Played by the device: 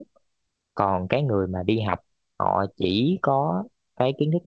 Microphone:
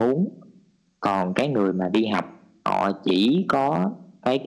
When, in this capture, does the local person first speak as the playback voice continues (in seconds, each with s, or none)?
none